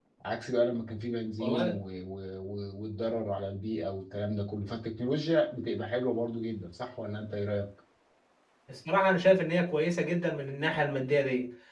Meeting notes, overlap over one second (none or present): none